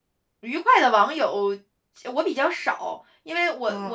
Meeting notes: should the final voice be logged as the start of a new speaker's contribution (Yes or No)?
Yes